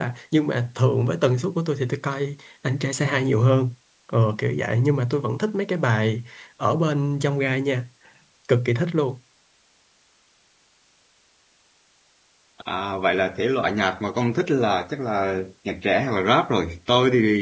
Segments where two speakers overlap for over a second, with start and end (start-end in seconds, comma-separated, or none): none